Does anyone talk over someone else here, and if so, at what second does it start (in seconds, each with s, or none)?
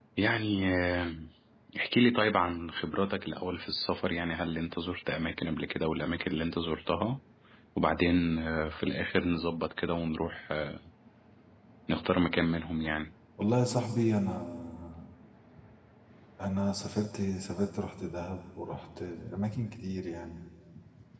none